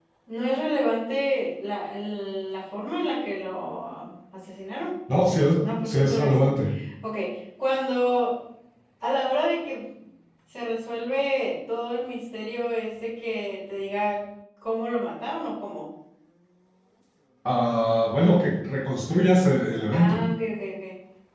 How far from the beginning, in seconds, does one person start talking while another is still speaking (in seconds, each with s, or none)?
5.1 s